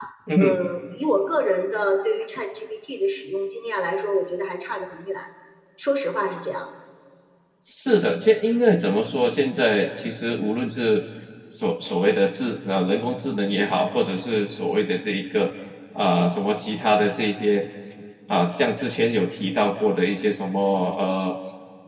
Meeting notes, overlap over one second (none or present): none